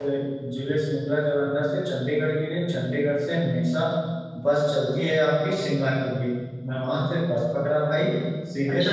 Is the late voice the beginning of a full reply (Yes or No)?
Yes